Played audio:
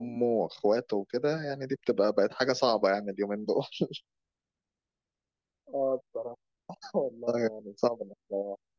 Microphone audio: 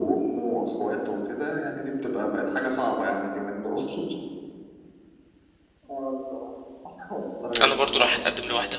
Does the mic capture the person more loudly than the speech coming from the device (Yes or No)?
Yes